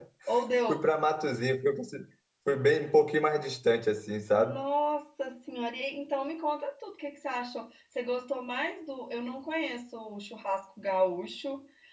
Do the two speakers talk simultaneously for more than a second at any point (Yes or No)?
No